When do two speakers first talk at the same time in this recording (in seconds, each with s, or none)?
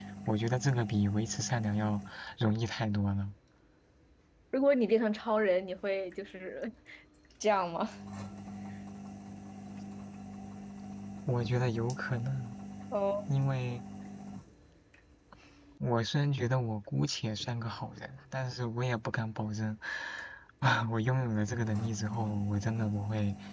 none